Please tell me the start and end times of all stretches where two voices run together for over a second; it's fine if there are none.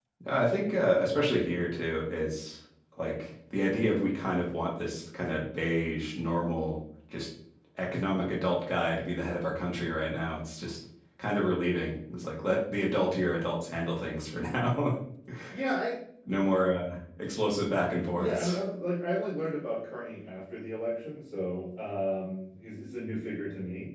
none

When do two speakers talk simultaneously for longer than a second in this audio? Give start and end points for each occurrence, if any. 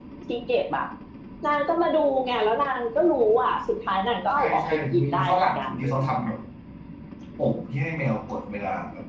4.3-6.3

